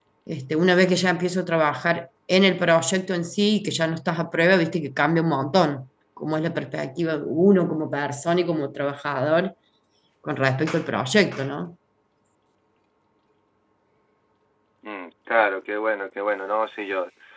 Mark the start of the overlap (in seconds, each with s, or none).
none